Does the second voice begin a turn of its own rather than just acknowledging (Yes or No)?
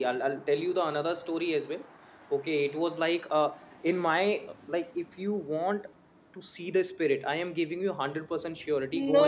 Yes